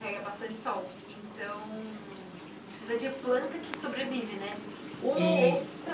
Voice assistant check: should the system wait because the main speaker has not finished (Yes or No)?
Yes